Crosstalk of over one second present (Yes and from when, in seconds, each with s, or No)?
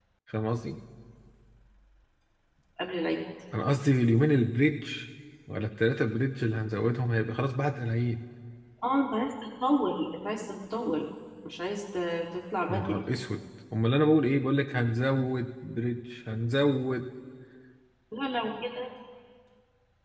No